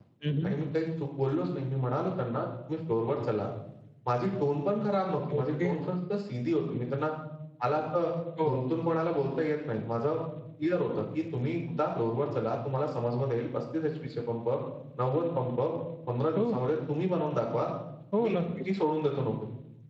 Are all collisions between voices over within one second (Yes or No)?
Yes